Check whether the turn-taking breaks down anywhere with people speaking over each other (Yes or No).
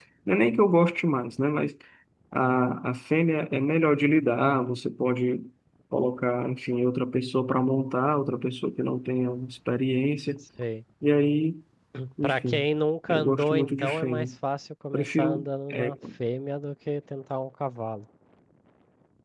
Yes